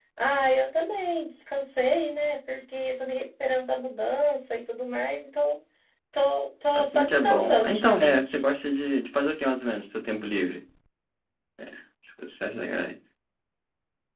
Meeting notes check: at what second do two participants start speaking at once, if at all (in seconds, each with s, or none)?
6.8 s